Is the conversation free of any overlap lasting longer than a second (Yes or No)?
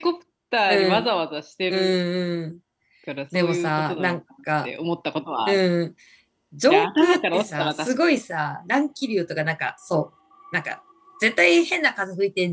No